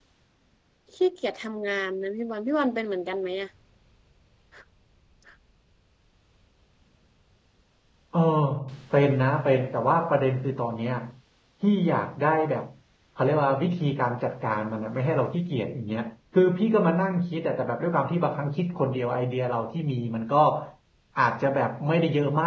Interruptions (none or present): none